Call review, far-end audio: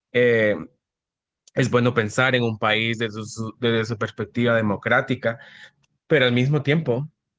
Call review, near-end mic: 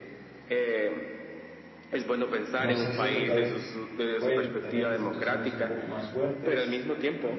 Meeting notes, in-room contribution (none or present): present